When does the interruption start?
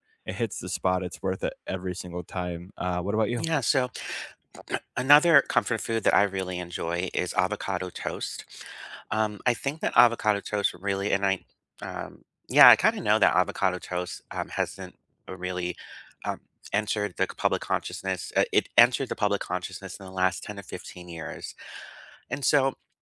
none

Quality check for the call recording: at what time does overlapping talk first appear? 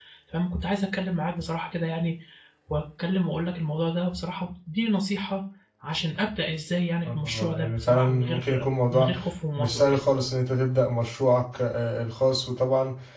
7.1 s

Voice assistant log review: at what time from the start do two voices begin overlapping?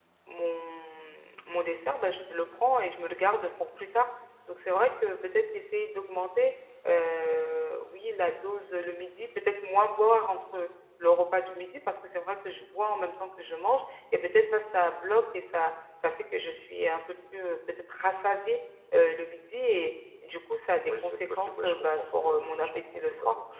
20.8 s

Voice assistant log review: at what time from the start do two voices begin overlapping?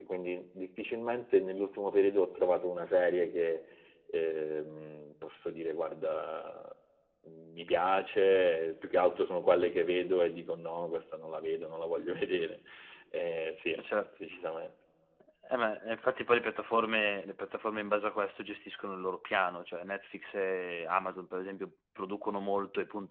none

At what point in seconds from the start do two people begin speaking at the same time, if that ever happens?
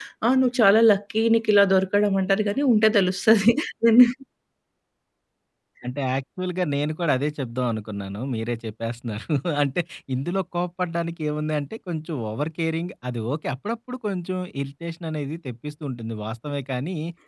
none

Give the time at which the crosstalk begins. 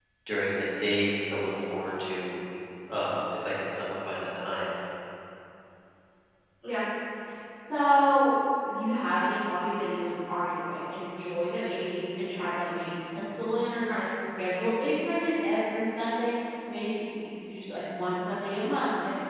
none

